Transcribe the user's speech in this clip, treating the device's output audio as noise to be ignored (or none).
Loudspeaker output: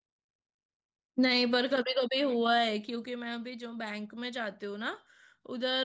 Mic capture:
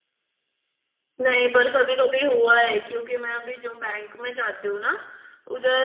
none